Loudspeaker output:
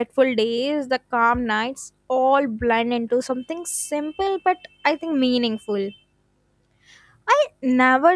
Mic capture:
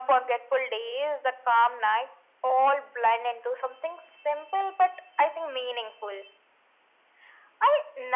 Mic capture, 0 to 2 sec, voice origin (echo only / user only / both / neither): echo only